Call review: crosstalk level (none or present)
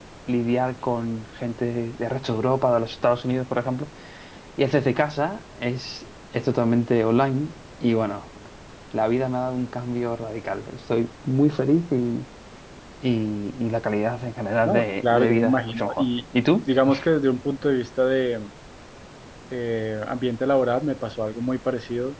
present